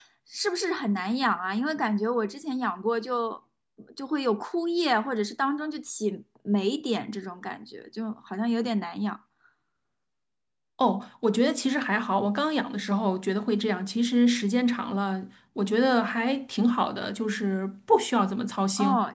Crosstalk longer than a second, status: none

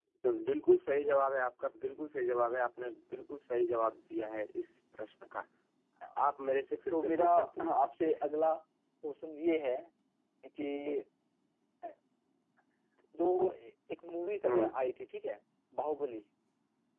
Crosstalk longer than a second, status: present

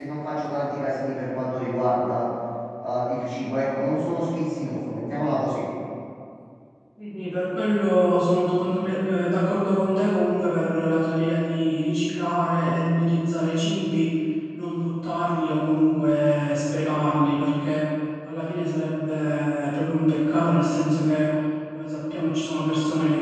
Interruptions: none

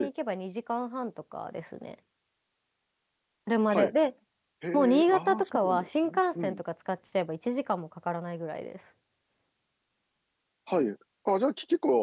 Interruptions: present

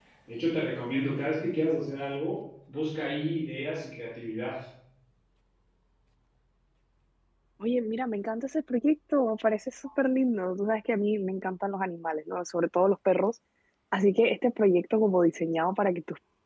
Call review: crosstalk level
none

